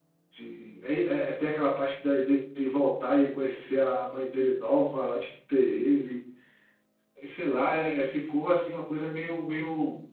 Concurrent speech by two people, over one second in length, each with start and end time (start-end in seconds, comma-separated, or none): none